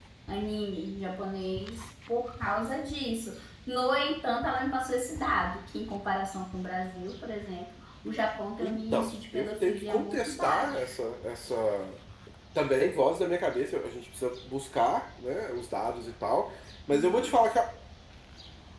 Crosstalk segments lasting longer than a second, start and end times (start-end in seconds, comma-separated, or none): 8.6-10.9